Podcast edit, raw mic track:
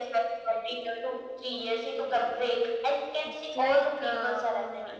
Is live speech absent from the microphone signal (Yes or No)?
No